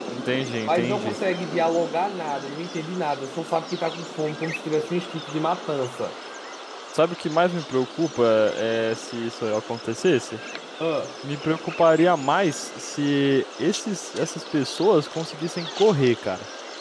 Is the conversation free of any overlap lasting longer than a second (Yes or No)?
Yes